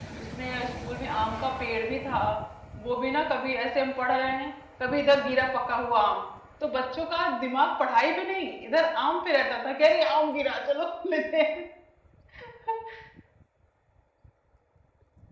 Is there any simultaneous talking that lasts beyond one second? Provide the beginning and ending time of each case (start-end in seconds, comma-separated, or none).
none